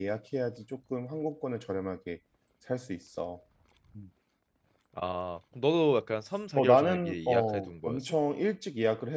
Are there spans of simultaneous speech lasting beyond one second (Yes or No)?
Yes